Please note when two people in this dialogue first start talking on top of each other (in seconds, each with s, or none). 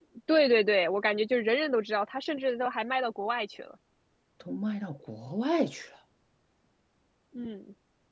none